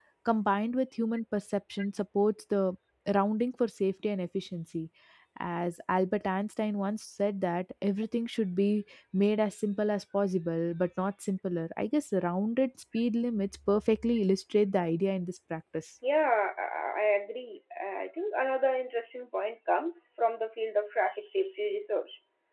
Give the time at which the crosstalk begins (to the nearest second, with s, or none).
none